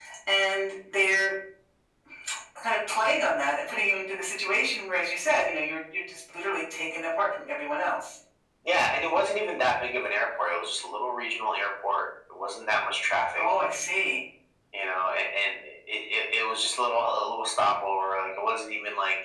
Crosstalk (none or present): none